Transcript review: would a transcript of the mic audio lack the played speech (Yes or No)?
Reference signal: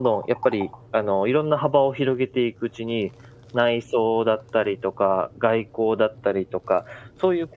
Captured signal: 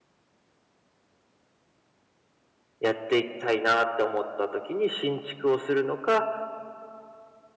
Yes